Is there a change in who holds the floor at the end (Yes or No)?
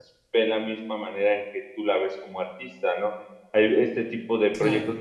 No